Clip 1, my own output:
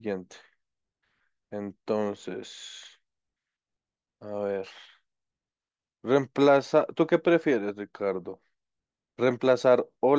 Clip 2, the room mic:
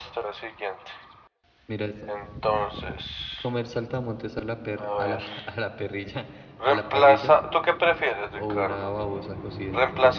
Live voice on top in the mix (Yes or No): No